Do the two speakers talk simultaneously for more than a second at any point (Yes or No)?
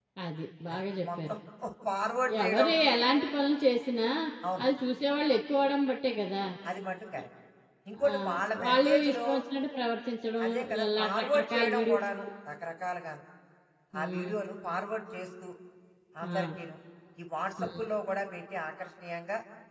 Yes